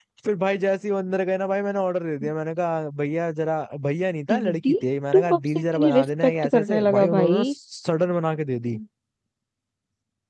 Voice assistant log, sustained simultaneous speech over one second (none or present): present